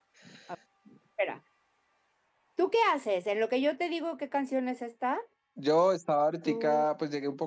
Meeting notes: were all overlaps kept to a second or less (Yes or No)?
Yes